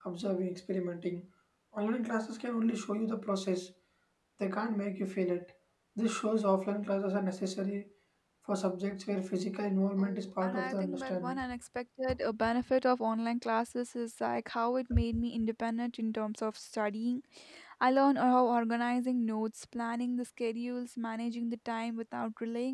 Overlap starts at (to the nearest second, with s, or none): 10 s